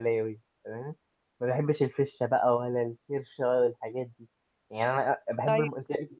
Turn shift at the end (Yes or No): No